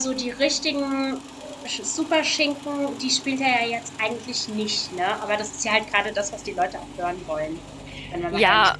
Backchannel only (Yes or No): No